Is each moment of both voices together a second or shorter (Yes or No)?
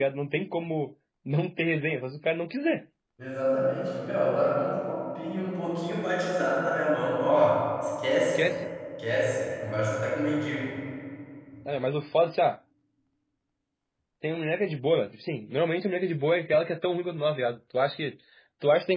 Yes